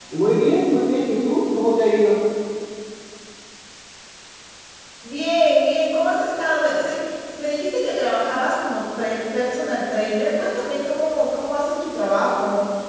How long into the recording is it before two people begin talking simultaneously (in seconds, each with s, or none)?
none